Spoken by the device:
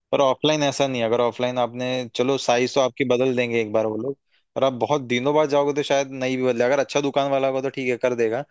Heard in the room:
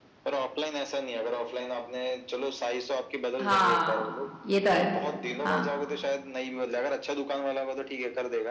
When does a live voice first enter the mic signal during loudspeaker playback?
3.4 s

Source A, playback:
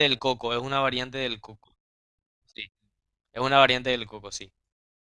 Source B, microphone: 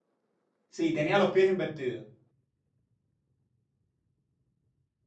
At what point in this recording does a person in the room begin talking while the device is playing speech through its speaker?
0.7 s

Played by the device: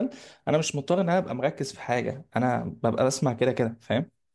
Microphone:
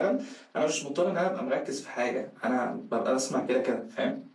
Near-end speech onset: none

